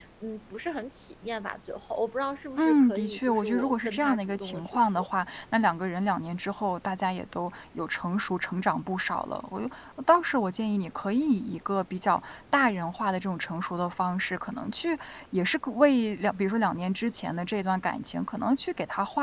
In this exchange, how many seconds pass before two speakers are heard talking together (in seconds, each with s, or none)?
2.6 s